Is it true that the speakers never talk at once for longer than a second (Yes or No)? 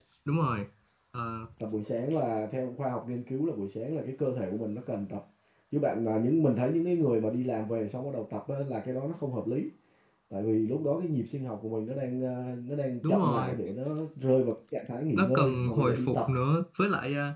No